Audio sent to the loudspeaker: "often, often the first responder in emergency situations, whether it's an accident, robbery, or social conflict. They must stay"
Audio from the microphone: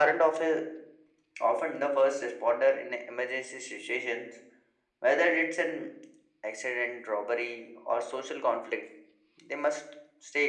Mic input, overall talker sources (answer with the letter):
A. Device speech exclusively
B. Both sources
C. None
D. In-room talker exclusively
A